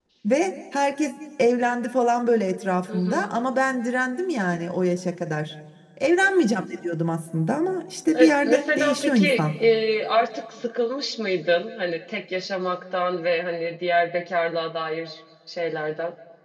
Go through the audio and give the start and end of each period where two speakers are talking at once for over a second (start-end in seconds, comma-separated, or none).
8.2-9.4